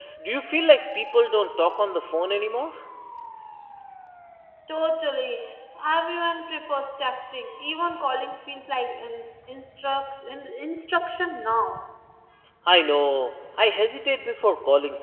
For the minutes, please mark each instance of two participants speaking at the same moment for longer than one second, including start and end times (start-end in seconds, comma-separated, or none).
none